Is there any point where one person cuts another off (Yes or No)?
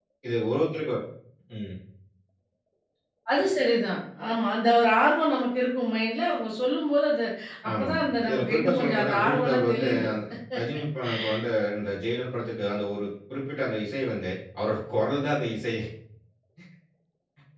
Yes